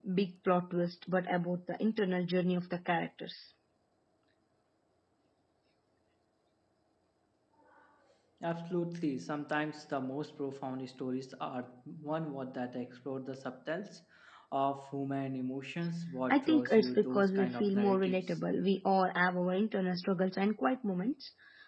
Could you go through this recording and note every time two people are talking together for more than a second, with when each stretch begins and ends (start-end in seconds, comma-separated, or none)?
16.3-18.4